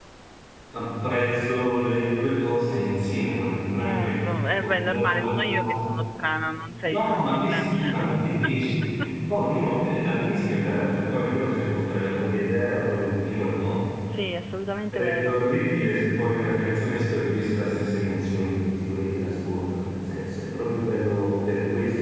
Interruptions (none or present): present